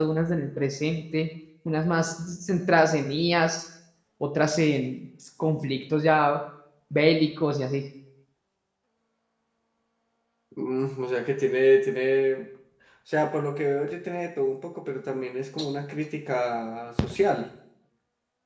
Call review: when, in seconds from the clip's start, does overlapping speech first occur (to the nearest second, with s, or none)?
none